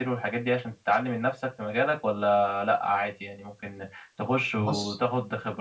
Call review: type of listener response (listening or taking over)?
listening